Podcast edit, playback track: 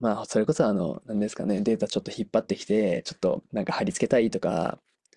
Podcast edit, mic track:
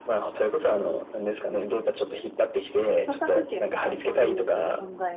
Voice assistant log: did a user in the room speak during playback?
Yes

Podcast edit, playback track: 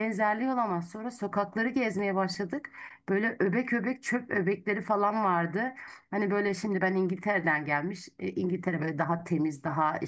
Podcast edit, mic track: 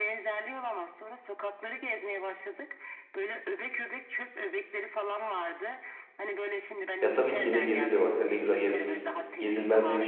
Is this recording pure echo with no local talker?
No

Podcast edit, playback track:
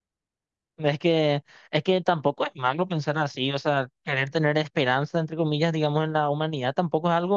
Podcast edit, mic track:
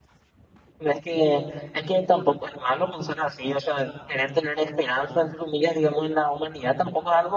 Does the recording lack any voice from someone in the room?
Yes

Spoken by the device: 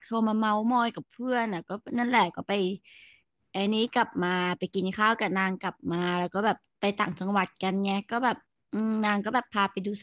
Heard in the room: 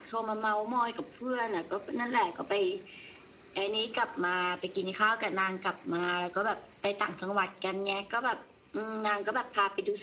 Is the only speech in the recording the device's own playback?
Yes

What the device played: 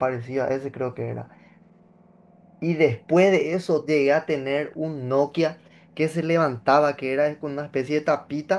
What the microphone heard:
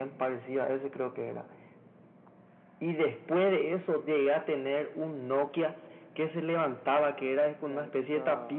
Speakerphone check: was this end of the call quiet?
No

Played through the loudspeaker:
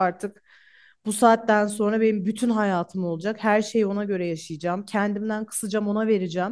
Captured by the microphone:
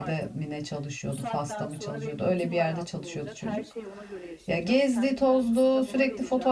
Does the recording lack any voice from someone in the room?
No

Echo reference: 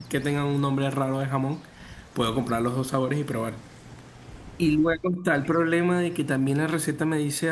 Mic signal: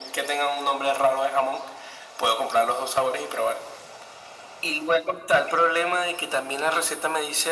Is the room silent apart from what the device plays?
Yes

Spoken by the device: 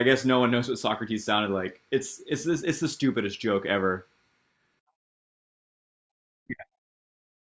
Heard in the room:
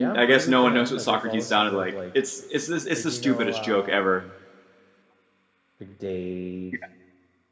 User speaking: Yes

